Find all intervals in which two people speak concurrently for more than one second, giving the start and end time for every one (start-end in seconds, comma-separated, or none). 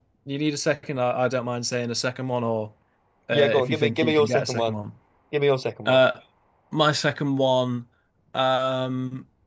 3.3-4.8